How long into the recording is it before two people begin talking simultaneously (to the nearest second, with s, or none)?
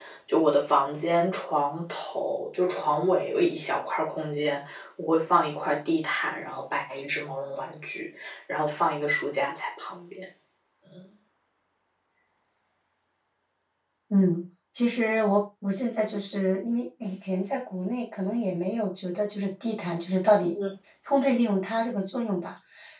none